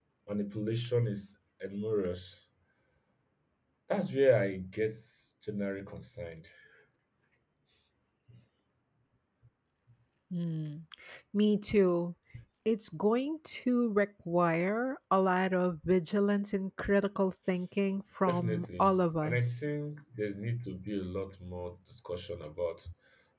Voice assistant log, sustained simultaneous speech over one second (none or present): present